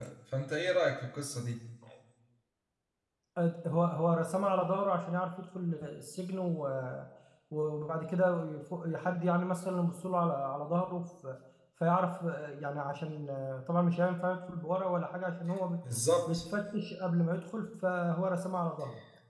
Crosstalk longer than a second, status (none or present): none